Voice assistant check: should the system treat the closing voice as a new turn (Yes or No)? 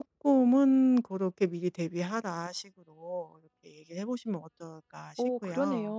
Yes